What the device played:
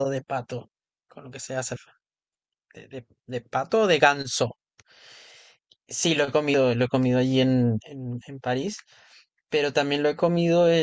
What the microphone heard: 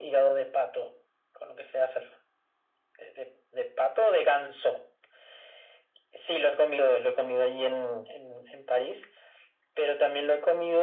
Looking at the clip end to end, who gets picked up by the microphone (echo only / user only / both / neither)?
echo only